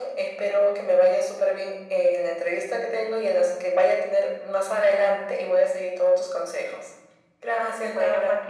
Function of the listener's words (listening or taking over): taking over